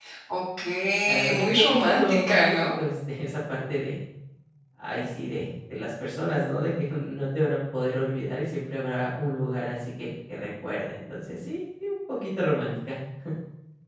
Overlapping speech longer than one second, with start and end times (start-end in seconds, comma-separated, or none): 1.1-2.5